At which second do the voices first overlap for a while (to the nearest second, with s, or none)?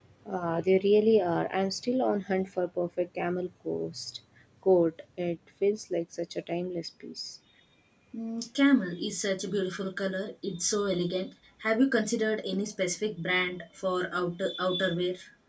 none